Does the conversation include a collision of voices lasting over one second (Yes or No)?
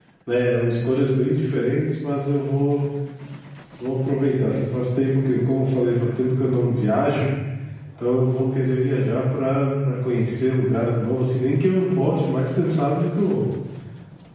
No